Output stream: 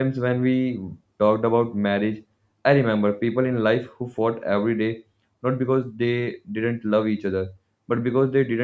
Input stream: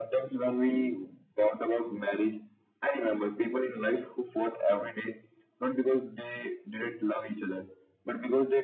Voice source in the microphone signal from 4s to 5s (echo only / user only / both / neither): echo only